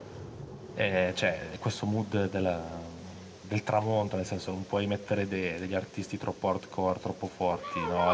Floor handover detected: Yes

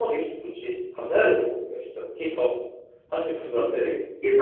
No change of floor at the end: No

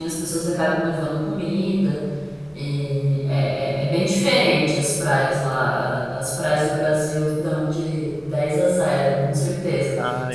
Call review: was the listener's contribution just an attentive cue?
Yes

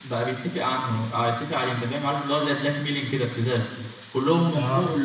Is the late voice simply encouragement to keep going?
Yes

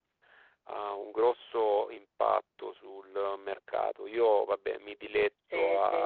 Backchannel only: Yes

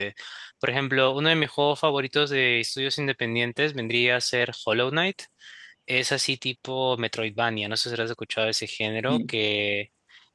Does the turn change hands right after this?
No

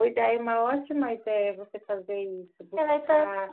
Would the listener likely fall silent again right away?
No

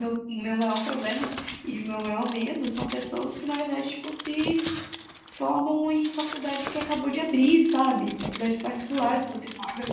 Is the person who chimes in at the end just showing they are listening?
Yes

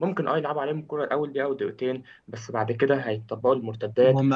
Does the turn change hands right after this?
Yes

